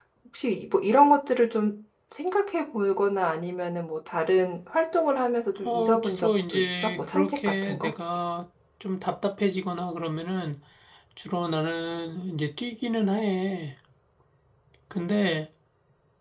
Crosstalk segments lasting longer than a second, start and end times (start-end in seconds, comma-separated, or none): 5.6-7.9